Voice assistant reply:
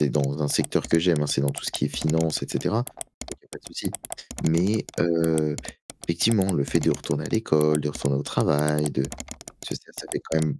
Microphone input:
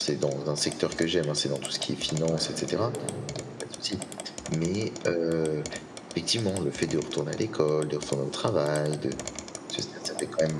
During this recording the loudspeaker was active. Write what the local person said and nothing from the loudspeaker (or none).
Bref, il y a longtemps.